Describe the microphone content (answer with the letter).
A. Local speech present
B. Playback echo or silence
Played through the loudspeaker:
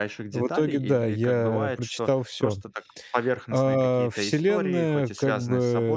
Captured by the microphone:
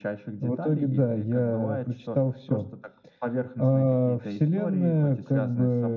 B